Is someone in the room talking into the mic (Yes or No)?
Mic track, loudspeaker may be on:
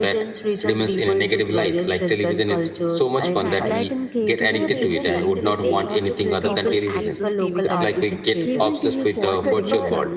Yes